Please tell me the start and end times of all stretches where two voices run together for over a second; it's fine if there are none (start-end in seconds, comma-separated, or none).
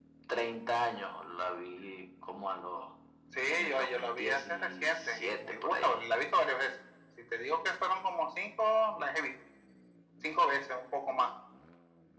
3.5-6.0